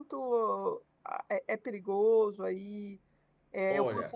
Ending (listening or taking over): taking over